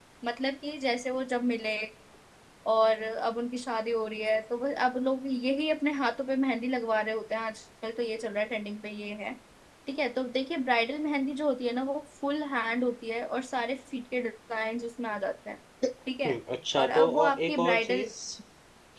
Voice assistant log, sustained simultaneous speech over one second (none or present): present